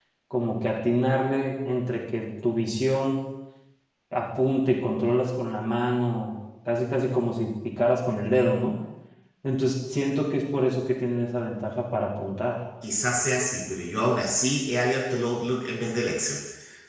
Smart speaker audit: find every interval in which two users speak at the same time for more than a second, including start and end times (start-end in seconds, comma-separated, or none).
none